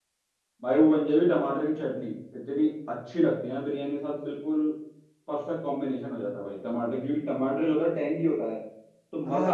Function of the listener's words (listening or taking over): taking over